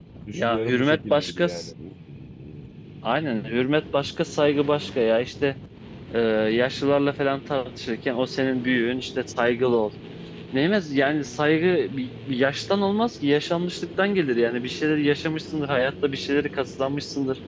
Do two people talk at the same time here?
Yes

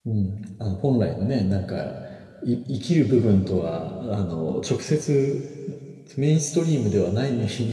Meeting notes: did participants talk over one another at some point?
No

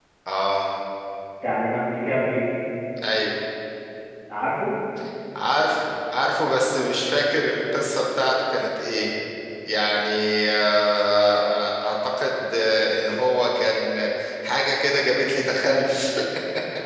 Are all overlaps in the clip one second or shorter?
Yes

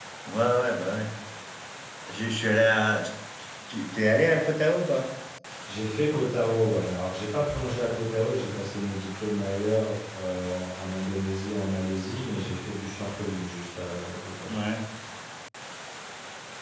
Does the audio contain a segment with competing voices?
No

